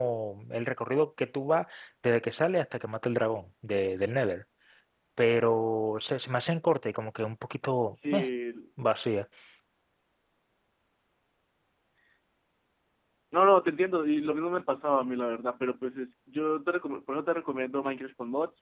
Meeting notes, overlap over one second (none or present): none